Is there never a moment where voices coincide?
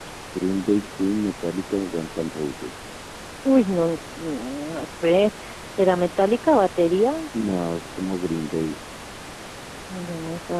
Yes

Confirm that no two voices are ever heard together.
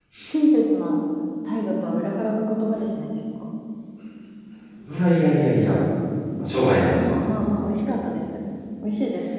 Yes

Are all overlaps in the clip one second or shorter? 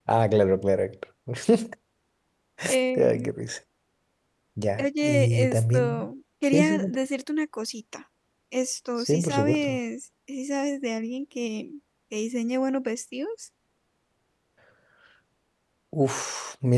No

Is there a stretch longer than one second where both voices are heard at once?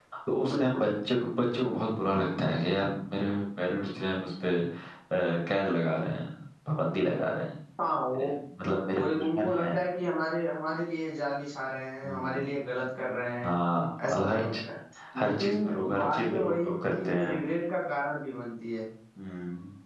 Yes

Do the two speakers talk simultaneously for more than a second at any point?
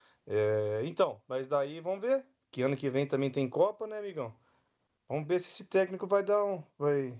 No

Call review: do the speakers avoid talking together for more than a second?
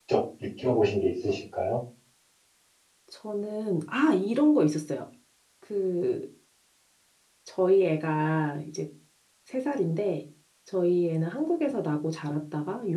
Yes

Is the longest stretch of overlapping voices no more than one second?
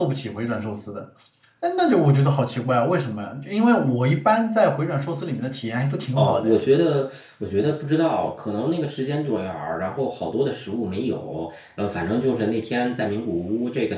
Yes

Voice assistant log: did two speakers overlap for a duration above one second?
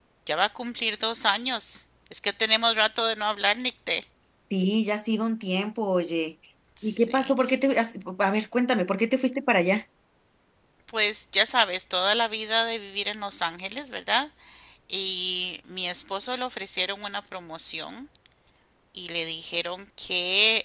No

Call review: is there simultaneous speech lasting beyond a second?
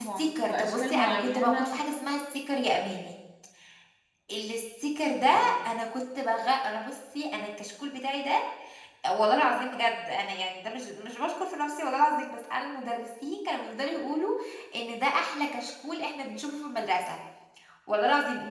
Yes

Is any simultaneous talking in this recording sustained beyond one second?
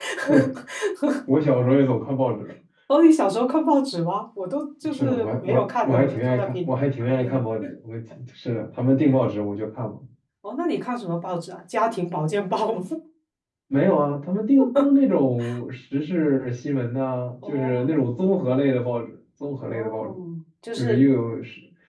Yes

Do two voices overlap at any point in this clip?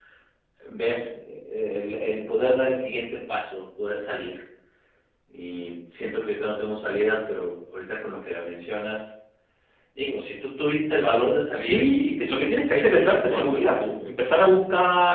Yes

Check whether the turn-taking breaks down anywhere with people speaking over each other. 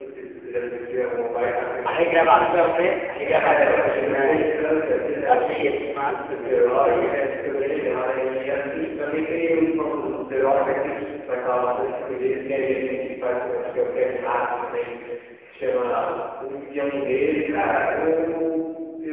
Yes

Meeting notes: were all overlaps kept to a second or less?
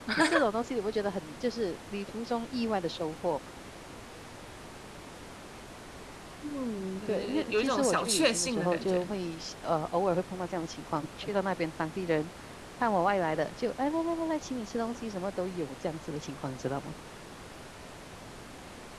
No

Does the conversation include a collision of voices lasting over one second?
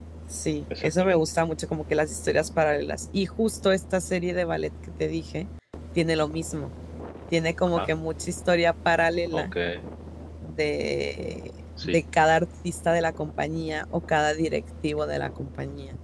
No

